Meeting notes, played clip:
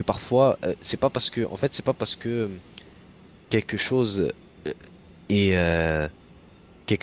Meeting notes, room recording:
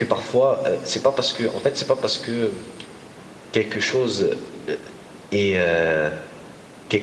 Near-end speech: none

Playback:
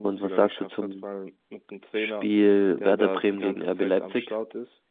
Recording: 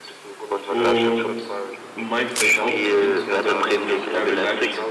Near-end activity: present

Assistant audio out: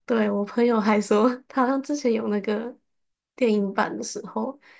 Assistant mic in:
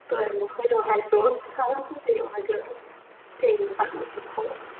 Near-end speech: none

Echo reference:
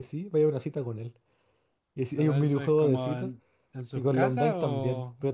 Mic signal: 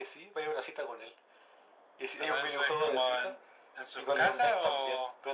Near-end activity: none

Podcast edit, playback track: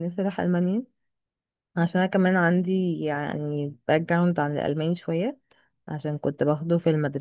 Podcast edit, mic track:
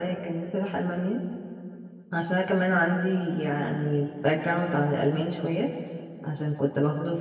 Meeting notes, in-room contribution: none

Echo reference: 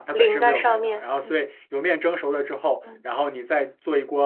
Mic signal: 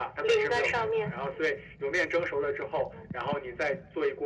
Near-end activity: none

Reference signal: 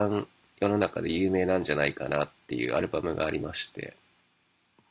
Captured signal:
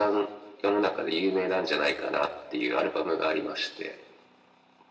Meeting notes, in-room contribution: none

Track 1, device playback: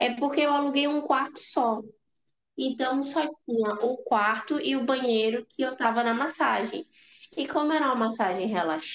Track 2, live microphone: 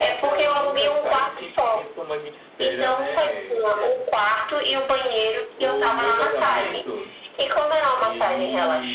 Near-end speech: present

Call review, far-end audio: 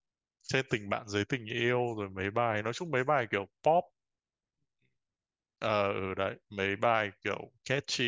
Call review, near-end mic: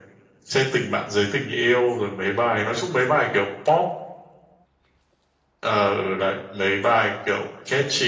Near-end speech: none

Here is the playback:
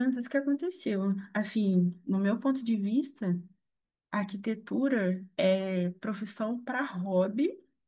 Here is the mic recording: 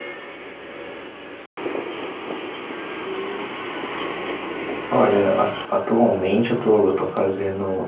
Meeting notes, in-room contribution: present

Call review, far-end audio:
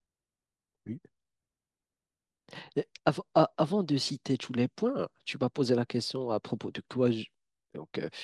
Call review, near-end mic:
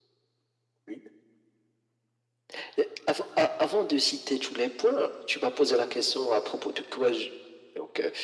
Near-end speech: none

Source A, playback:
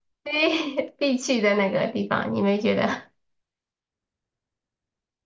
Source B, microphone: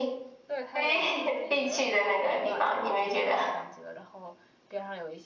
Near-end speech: present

